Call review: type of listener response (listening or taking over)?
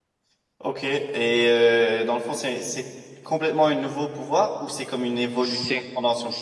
taking over